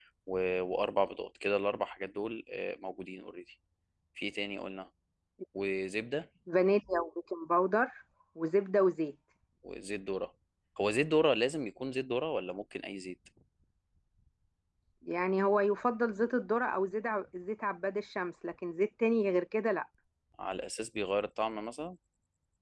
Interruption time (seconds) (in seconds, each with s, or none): none